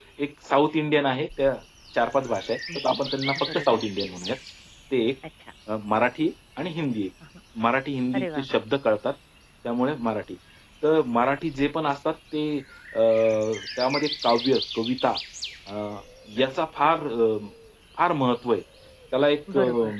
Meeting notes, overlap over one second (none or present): none